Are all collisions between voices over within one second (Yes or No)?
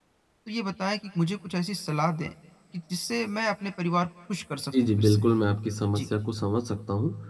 Yes